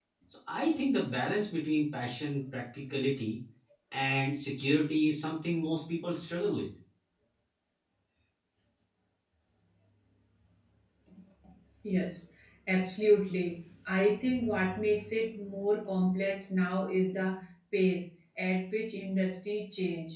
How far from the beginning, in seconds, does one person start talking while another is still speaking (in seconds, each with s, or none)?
none